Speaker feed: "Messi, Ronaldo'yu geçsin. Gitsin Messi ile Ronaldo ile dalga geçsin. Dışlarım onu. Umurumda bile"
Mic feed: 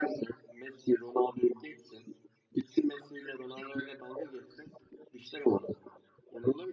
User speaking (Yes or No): No